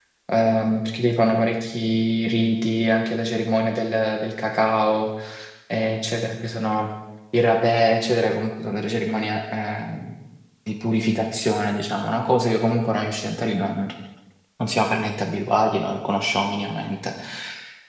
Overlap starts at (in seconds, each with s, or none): none